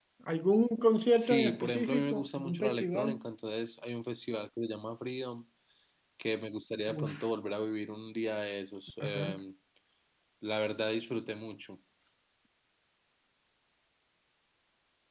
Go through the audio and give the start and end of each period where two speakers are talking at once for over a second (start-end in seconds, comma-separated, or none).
1.2-3.2